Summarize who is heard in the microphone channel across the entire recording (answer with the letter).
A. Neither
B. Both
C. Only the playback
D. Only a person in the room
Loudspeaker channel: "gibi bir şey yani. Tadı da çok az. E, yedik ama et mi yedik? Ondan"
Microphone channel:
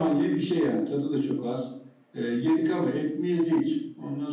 C